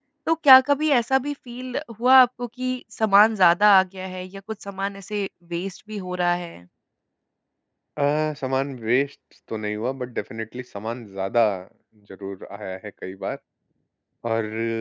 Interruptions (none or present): none